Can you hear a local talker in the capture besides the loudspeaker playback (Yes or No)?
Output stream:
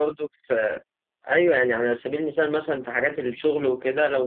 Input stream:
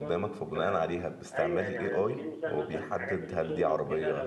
Yes